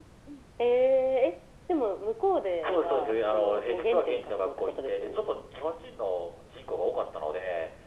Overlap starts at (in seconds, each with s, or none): 2.6 s